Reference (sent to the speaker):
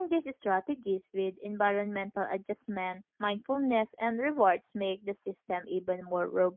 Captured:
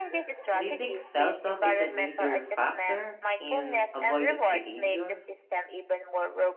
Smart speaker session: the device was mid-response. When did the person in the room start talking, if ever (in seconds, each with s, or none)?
0.5 s